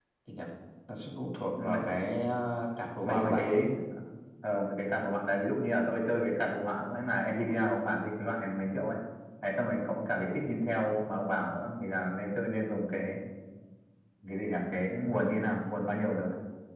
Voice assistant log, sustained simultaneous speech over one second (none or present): none